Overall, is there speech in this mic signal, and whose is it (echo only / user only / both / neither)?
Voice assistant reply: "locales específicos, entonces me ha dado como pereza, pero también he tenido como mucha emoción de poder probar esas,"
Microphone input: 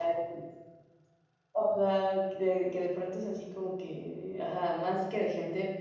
user only